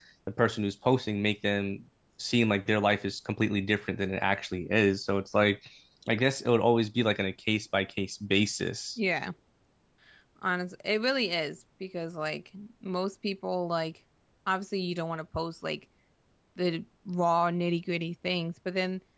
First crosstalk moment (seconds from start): none

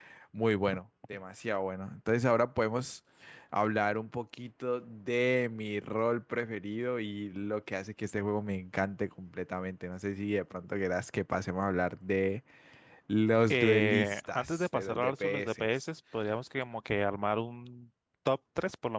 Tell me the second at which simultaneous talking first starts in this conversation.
13.5 s

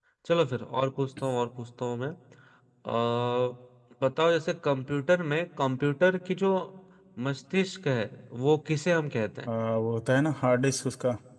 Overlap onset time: none

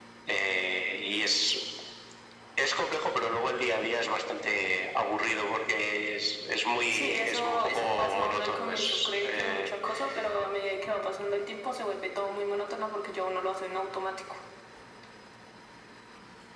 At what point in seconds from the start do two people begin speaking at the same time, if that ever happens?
6.9 s

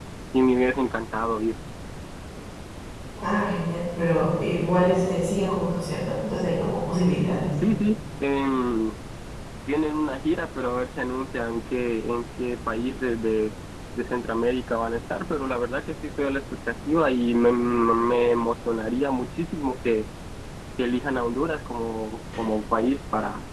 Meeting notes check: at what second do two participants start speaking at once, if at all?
none

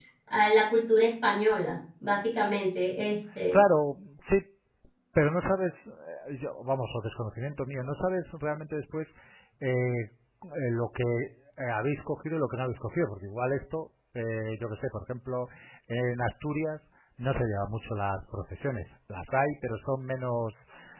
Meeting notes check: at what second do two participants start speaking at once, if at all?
none

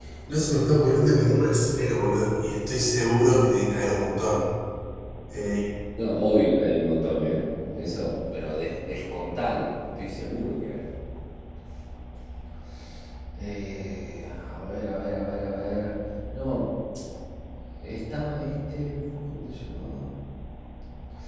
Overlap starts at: none

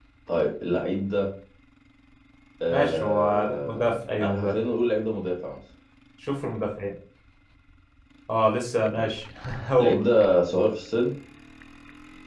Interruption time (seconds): 2.7 s

